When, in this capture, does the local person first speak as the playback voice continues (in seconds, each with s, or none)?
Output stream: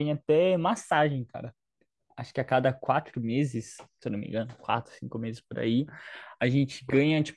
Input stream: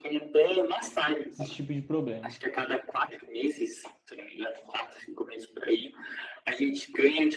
1.3 s